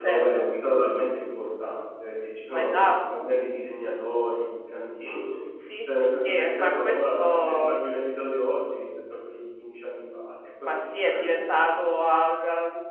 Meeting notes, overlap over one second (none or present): present